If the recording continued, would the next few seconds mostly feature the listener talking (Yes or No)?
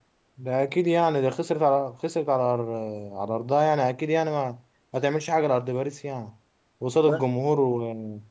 No